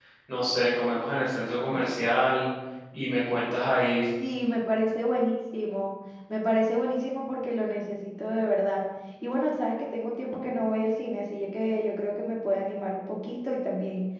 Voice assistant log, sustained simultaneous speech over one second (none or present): none